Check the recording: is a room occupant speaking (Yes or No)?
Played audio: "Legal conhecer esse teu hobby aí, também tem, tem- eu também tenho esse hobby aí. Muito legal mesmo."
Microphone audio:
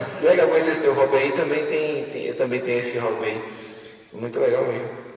No